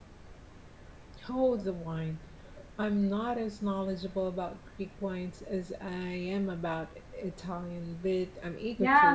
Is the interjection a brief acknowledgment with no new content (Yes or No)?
No